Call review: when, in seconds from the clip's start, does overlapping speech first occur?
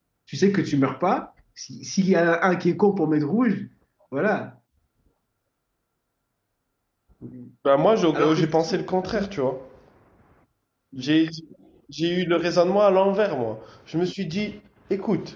8 s

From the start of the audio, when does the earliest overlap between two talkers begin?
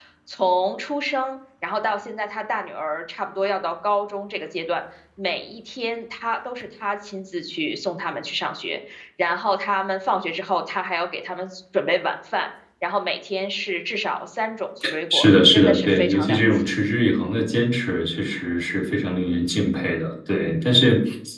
15 s

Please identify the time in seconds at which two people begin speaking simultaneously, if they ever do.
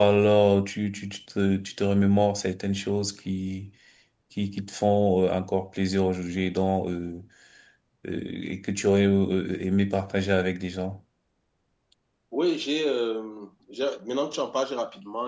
none

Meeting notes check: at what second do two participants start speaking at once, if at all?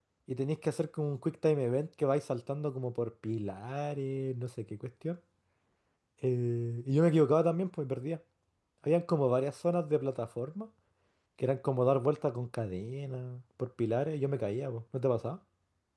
none

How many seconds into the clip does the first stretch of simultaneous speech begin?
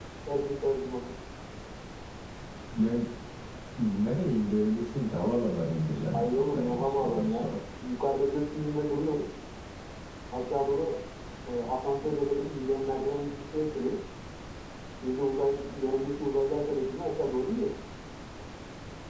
6 s

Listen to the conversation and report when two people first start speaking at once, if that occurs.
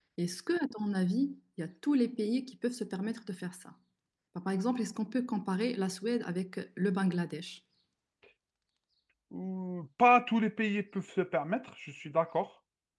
none

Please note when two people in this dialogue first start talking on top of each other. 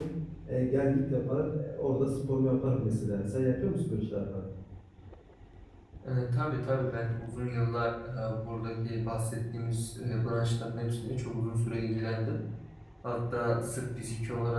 none

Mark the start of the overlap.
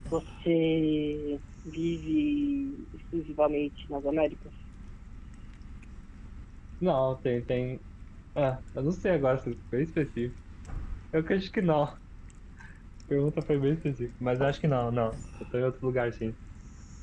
none

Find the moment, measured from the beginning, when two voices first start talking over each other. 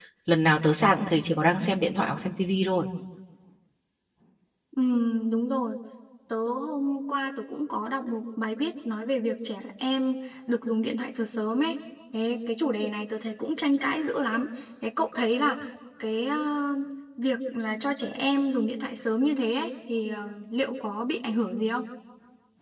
none

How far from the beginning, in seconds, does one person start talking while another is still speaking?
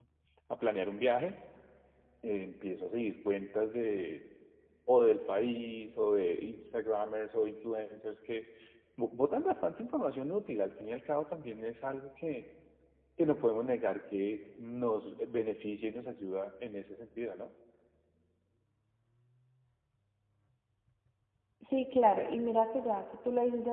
none

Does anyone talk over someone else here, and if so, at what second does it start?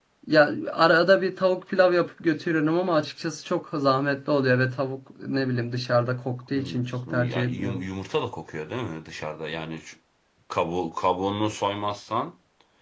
7 s

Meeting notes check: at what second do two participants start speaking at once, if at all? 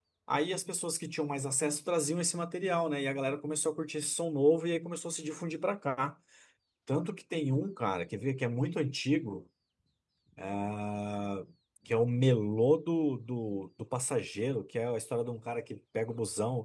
none

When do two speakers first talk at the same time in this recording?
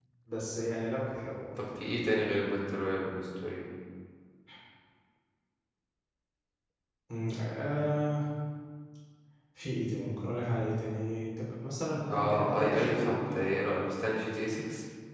12 s

